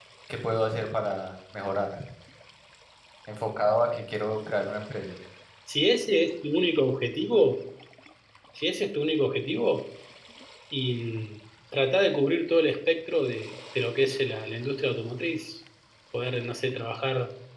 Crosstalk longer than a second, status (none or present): none